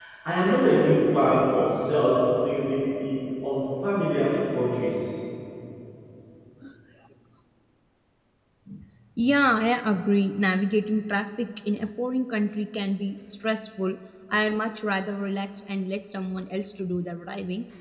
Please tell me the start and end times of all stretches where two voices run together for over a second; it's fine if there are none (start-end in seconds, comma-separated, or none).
none